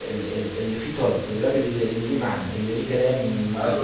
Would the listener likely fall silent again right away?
No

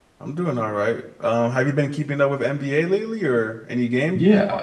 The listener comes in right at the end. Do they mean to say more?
Yes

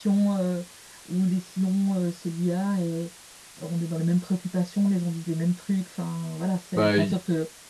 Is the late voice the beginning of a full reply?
No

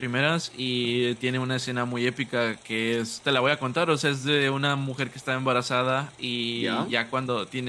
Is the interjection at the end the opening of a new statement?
No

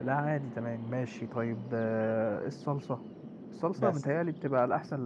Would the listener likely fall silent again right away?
Yes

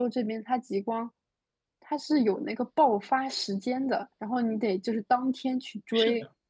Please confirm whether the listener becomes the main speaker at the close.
Yes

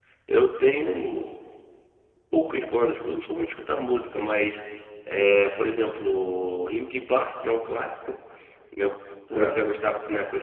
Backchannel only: Yes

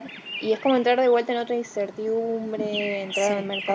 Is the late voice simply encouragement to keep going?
No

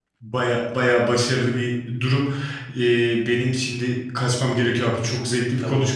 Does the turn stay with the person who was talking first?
Yes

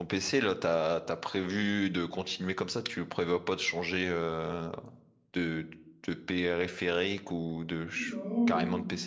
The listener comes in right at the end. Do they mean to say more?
Yes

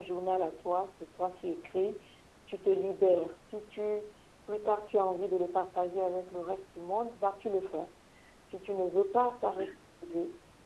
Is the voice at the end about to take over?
No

